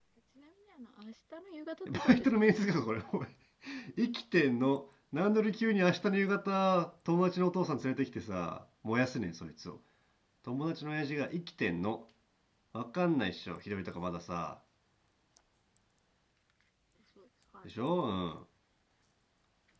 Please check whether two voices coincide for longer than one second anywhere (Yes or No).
No